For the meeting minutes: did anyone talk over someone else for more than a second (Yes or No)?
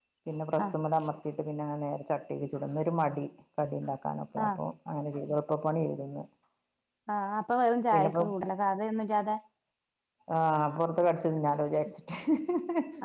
No